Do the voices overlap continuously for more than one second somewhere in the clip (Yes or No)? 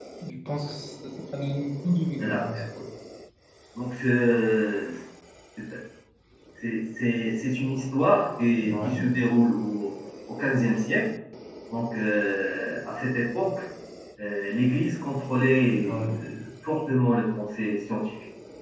No